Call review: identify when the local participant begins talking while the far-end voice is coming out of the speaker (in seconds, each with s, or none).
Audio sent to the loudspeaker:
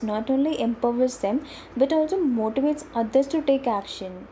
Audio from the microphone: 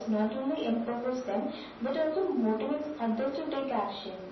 none